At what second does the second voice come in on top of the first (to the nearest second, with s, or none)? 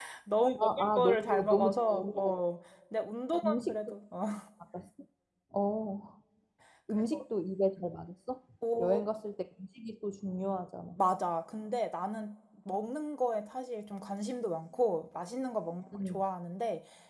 1 s